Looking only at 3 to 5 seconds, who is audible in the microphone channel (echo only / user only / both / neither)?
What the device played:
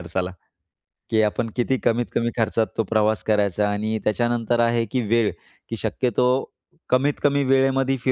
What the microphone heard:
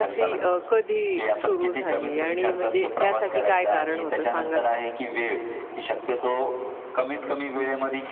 both